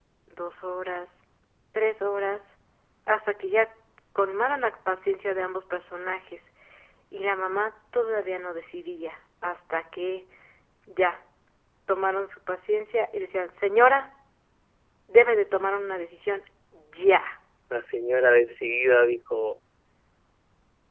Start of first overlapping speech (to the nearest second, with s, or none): none